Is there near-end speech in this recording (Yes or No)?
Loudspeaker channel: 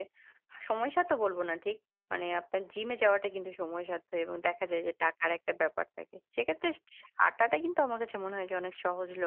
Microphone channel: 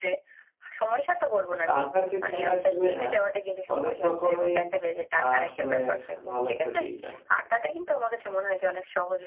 Yes